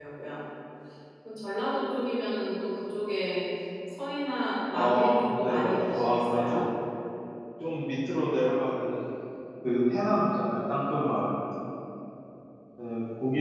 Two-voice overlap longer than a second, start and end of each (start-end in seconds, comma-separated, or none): 4.7-6.7